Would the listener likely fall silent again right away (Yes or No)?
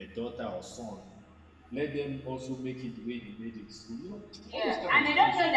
No